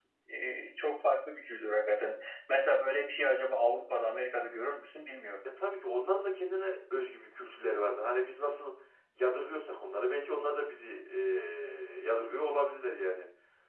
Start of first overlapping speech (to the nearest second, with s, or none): none